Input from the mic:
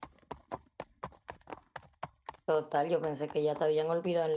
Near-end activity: present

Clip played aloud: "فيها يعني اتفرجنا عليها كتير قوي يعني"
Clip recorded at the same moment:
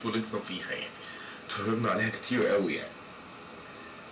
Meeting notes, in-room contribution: none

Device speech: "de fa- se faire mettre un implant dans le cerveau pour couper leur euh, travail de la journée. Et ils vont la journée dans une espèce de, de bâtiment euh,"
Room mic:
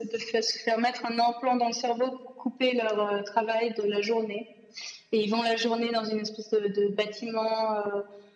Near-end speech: none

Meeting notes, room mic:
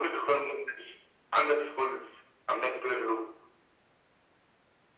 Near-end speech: none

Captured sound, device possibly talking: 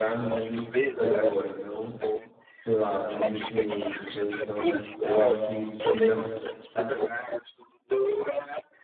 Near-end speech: present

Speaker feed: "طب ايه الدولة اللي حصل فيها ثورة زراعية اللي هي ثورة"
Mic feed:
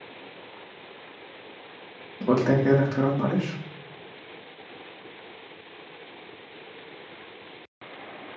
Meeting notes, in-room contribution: present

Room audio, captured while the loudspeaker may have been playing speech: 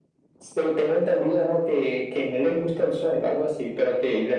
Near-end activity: none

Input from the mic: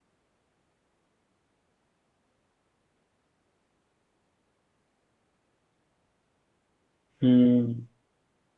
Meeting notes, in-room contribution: present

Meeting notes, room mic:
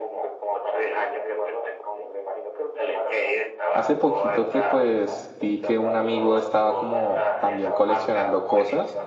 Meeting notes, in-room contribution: present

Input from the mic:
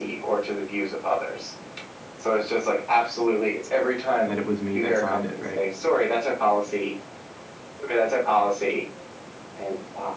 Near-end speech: present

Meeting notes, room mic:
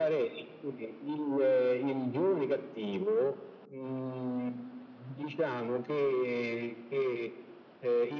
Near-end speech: none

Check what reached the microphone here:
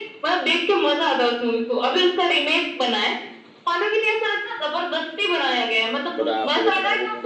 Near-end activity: present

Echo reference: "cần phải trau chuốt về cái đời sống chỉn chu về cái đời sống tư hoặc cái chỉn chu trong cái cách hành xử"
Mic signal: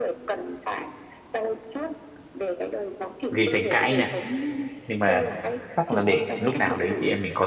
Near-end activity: present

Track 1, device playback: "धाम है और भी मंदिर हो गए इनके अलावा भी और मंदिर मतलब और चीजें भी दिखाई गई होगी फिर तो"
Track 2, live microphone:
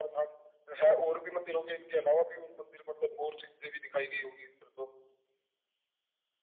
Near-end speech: none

